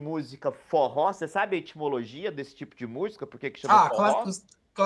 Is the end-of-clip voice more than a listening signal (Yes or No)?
Yes